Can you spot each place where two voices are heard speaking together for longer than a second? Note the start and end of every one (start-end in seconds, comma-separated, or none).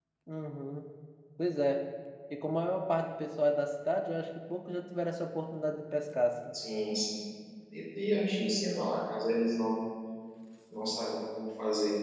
none